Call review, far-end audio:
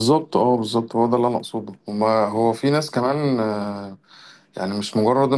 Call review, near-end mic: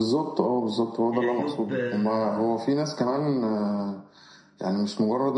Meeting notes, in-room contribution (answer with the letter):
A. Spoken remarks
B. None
A